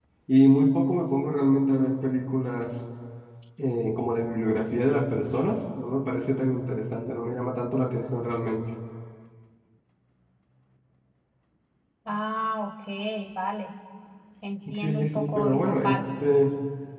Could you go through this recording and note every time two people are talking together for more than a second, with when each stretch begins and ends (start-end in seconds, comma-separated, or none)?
14.7-16.0